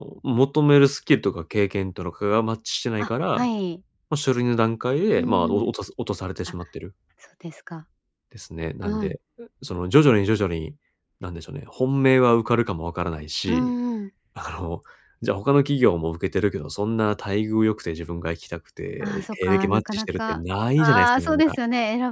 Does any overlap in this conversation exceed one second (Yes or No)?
Yes